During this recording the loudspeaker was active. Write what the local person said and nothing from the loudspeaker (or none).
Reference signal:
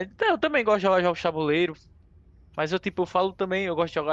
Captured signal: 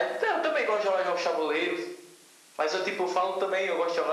none